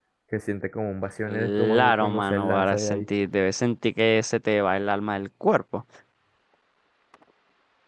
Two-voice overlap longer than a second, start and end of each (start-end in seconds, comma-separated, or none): 1.3-3.0